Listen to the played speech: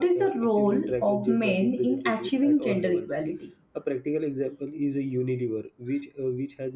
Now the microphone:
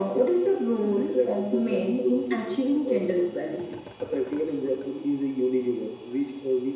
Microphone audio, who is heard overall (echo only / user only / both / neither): echo only